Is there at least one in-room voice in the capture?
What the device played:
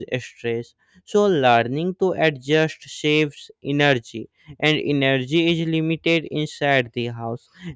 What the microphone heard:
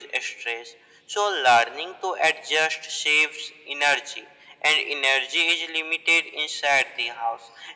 No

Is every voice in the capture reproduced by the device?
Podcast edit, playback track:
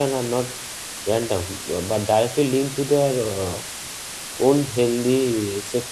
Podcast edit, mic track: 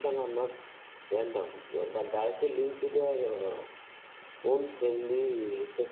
Yes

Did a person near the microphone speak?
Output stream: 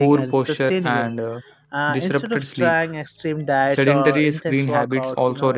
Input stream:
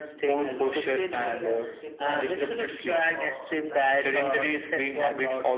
Yes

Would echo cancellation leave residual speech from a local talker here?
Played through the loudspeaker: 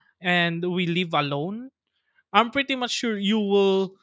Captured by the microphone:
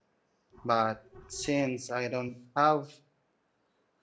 Yes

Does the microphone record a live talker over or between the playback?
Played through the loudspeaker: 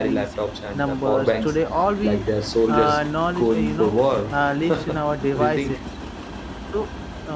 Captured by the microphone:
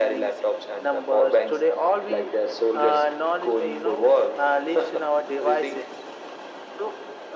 No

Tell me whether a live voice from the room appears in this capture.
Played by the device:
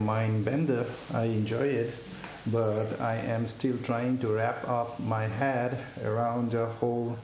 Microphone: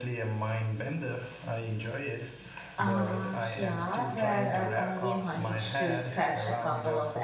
Yes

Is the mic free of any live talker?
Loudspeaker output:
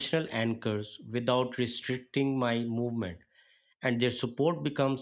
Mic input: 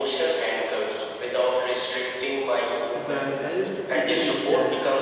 No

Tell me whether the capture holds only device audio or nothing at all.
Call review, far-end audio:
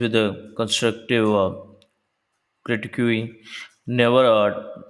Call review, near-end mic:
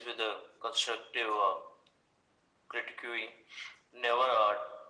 Yes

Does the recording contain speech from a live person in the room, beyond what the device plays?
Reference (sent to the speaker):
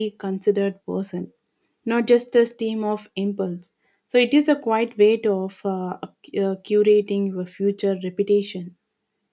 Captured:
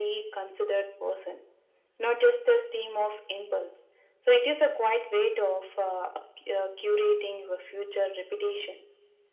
No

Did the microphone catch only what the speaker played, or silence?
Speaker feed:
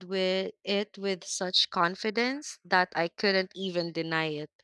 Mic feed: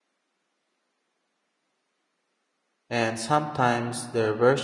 No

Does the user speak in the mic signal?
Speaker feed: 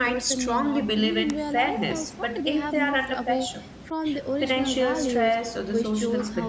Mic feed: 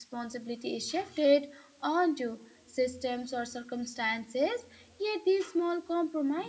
Yes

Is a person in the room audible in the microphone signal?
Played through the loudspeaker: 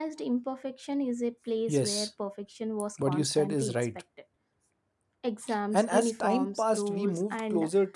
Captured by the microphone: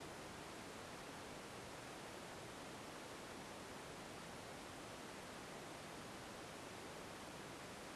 No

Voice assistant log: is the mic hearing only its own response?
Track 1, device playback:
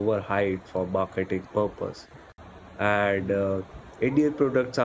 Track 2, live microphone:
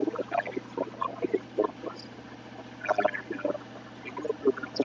Yes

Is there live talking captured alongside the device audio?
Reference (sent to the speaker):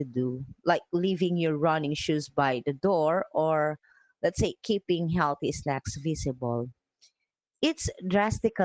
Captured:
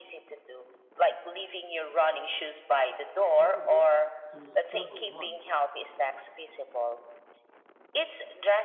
Yes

